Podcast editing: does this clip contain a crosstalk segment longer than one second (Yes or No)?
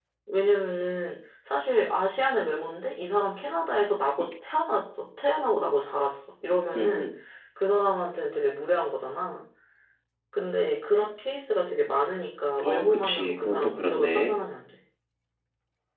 Yes